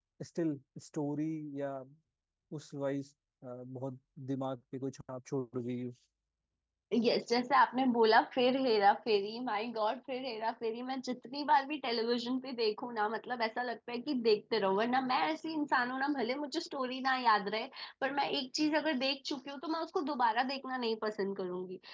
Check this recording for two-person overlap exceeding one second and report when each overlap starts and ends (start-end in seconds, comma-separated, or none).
none